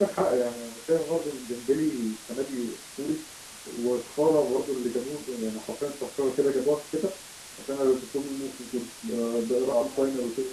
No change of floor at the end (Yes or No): No